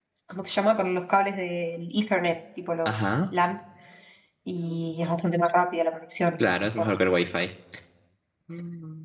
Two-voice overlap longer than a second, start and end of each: none

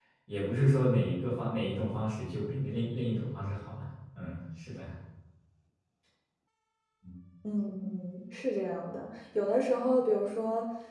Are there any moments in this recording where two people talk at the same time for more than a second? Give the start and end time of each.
none

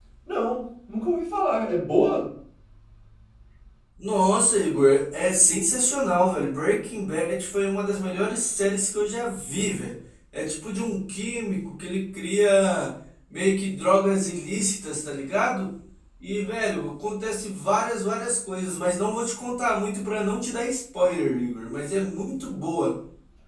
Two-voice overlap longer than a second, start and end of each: none

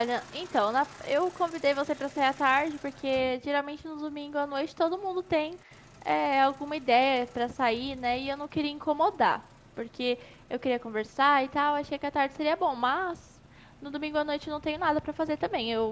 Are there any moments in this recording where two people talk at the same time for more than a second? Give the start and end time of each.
none

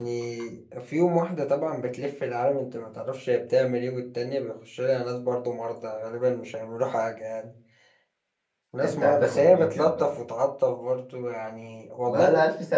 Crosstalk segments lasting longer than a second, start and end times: 8.8-10.2

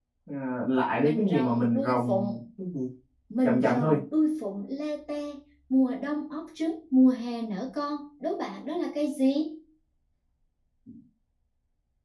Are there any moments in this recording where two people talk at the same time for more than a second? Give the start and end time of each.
1.0-2.3

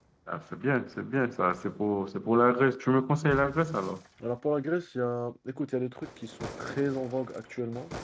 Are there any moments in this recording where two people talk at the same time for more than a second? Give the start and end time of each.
none

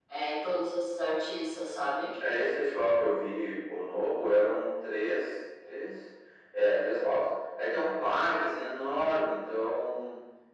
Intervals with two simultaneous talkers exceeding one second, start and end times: none

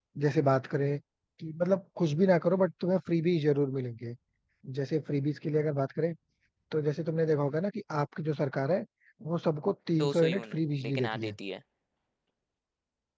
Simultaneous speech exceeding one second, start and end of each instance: 10.0-11.4

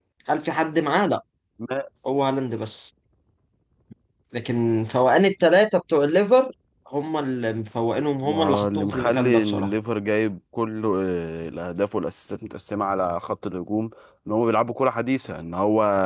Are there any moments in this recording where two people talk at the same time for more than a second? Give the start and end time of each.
8.2-9.7

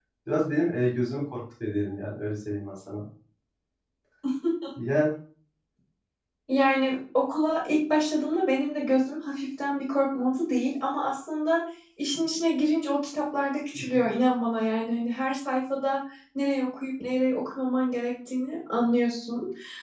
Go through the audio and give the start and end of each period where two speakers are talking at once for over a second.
none

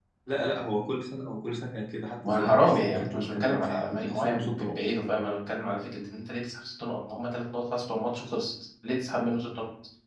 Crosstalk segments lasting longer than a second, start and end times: 2.2-4.8

